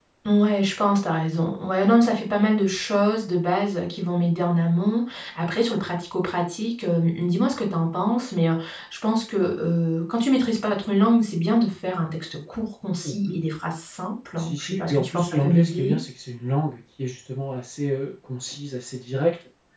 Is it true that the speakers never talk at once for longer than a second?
No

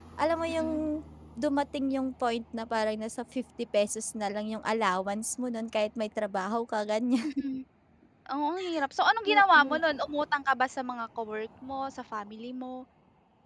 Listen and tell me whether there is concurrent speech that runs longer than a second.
No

